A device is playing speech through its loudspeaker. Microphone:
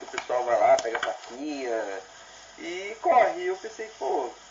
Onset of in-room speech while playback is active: none

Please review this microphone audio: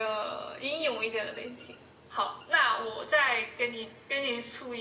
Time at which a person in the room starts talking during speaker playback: none

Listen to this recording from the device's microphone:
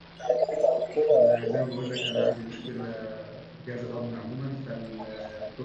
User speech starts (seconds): 1 s

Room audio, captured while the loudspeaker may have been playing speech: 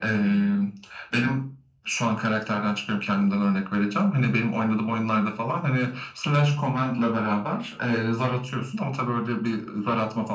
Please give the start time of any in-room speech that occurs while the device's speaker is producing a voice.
none

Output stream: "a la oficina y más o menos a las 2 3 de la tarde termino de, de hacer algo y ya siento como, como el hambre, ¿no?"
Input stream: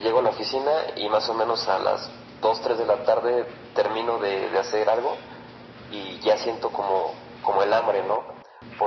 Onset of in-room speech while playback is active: none

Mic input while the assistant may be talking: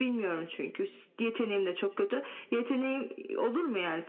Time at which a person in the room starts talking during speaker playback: none

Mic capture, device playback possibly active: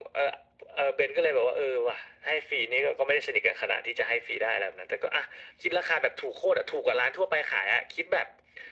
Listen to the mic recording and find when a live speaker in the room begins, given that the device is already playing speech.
none

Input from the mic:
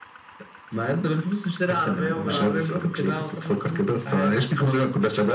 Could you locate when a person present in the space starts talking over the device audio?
2 s

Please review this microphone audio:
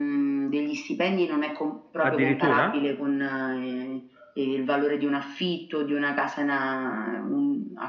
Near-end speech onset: 2 s

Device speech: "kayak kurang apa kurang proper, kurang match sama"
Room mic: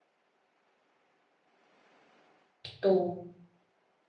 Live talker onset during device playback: 3 s

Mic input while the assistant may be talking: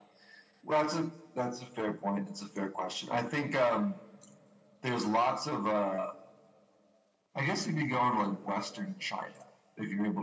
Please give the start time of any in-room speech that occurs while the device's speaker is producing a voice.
none

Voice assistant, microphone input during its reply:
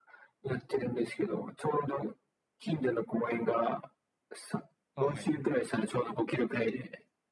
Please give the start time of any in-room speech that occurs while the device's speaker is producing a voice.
5 s

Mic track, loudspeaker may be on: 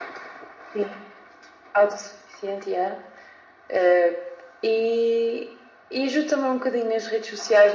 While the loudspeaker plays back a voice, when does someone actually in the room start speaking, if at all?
none

